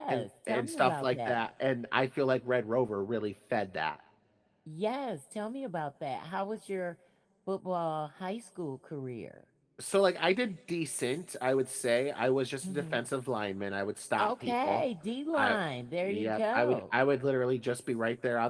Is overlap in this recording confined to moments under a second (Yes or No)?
No